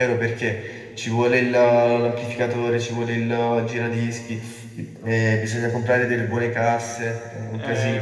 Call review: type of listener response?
taking over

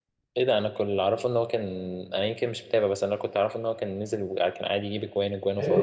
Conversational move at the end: taking over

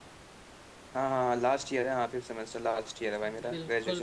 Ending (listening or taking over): taking over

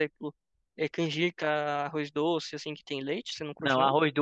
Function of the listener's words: taking over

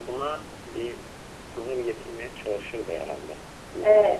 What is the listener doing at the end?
taking over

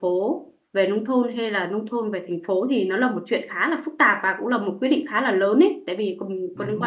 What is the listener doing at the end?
listening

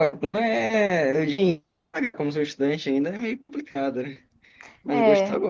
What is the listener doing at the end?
listening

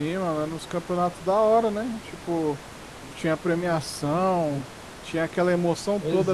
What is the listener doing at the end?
taking over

